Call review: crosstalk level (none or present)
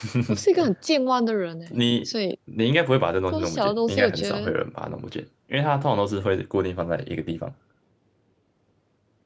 present